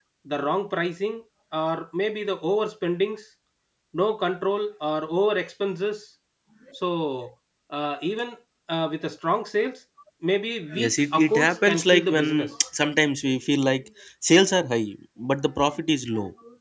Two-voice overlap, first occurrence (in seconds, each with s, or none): 10.7 s